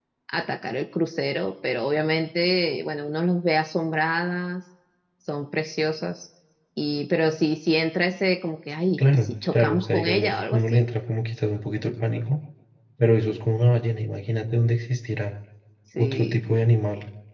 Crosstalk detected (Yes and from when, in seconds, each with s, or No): Yes, from 9.0 s